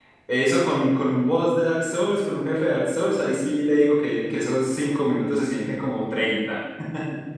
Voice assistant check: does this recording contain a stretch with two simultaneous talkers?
No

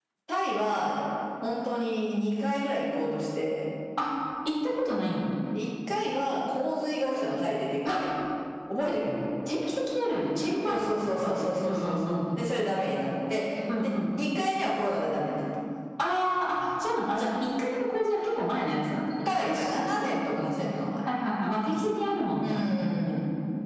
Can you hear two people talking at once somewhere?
Yes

